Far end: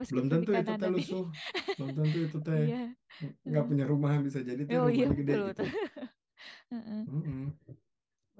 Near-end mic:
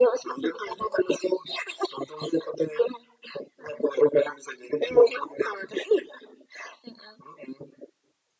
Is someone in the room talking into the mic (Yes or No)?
No